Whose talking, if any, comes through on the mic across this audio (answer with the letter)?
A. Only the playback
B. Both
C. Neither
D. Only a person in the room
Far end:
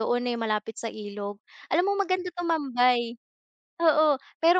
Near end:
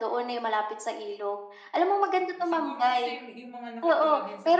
B